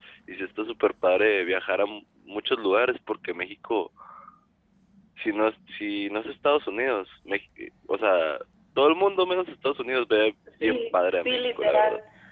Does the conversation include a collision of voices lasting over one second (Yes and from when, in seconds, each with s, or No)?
Yes, from 10.5 s